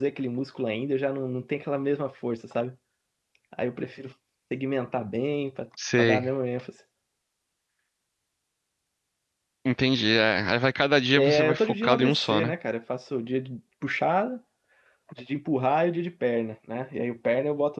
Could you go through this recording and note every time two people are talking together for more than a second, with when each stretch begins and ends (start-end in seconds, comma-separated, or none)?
11.2-12.5